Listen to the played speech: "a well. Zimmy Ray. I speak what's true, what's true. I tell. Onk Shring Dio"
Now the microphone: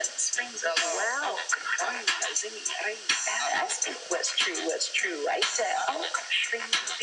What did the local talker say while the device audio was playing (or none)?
none